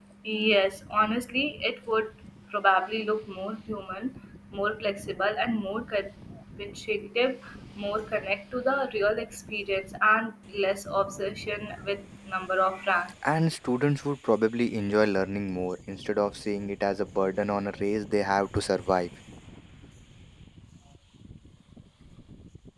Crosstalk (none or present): none